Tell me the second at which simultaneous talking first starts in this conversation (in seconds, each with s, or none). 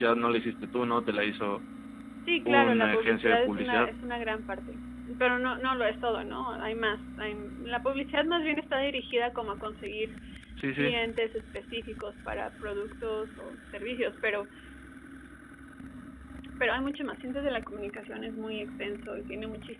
2.5 s